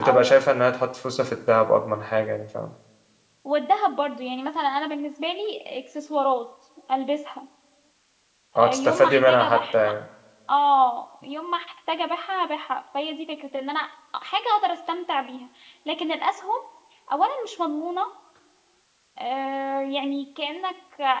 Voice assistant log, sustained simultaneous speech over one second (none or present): present